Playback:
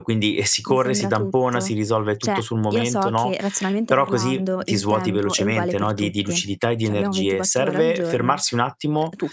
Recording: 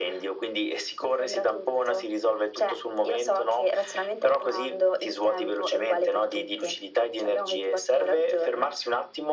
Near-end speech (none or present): none